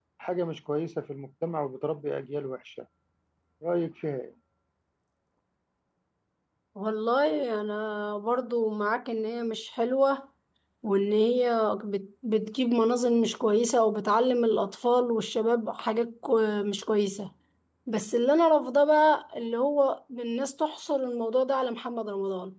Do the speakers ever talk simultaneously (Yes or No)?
No